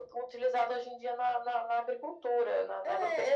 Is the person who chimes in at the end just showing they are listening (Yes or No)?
No